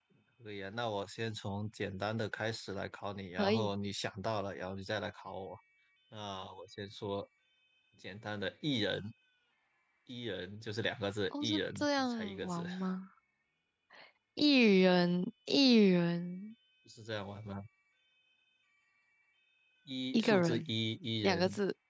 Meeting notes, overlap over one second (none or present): present